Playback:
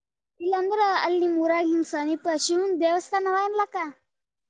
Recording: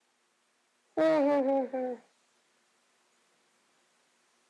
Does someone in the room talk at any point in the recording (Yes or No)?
Yes